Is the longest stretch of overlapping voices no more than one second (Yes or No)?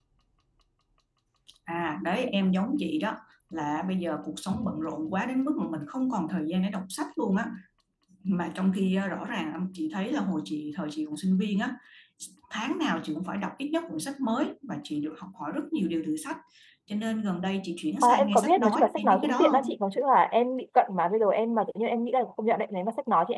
No